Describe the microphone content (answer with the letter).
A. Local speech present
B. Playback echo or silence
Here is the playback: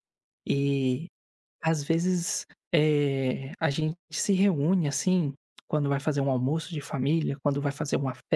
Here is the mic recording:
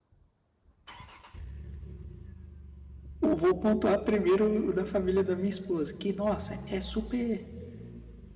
A